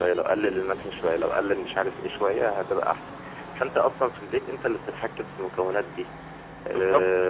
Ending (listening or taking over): listening